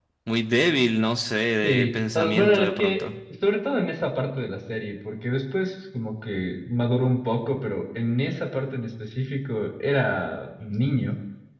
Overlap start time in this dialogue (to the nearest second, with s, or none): 2 s